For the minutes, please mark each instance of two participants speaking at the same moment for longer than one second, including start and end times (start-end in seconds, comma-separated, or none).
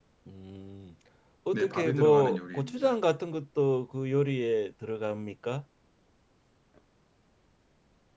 1.5-3.0